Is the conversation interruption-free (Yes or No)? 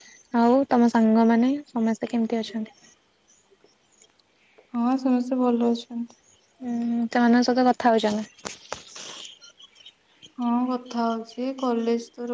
Yes